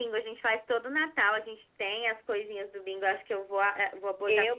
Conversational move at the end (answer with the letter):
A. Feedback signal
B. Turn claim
B